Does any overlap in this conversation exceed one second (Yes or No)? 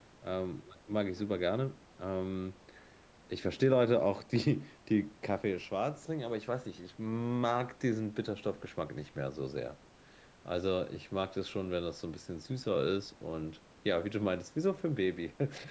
No